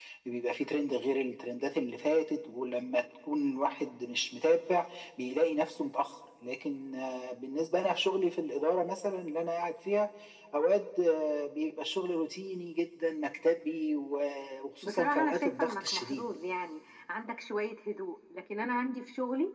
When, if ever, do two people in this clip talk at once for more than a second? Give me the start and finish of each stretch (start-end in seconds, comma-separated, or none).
14.8-16.3